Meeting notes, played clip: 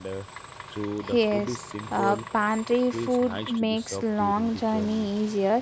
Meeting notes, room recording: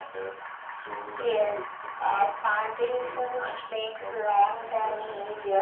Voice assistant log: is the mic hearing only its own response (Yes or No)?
Yes